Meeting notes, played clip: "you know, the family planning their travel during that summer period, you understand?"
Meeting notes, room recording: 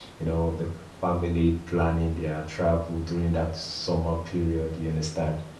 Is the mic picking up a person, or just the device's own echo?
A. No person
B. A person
A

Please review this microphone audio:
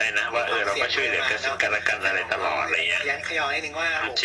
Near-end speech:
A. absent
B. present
A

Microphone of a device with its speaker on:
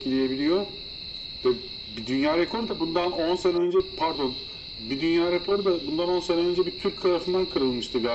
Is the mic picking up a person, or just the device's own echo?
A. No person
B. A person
A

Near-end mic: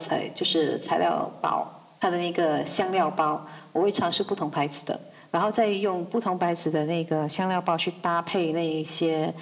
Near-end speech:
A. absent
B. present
A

